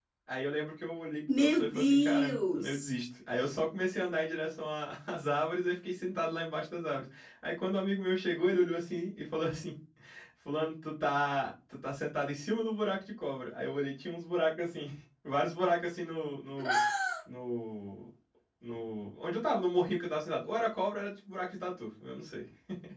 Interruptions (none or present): present